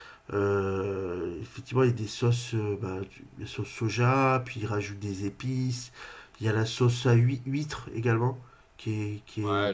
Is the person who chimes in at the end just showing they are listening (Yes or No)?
No